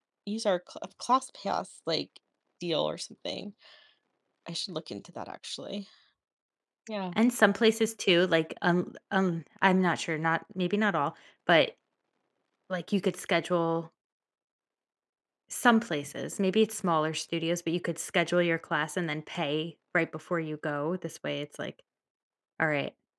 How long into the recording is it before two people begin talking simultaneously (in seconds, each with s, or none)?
none